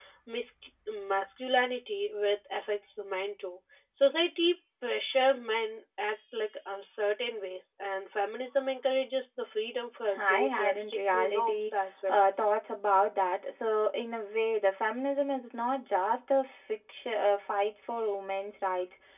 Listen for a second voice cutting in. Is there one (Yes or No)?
Yes